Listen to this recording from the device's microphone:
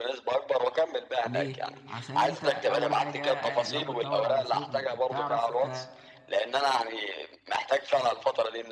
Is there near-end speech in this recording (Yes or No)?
Yes